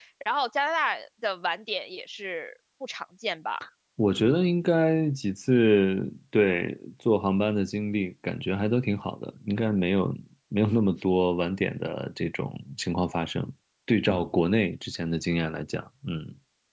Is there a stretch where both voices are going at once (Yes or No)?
No